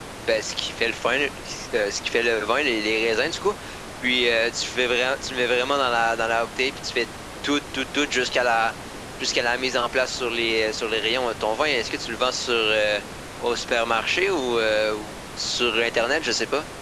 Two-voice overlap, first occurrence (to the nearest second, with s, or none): none